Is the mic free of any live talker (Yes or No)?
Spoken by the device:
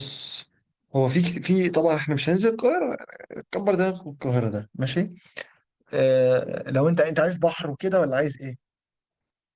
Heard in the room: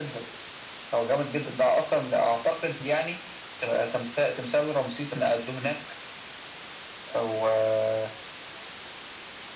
No